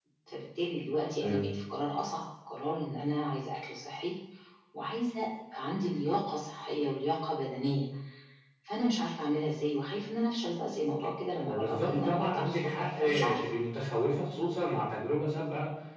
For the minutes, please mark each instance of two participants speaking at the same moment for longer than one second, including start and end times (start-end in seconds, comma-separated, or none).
11.4-13.5